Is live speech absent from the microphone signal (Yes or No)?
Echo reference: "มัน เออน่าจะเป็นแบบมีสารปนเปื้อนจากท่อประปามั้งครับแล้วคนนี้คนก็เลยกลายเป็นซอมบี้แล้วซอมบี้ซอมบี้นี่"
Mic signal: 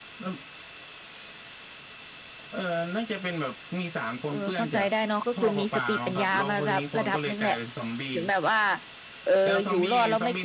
No